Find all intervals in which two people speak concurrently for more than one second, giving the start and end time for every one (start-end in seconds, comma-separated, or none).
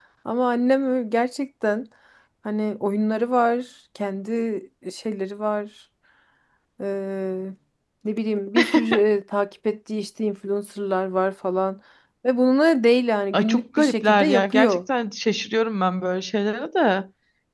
13.3-14.8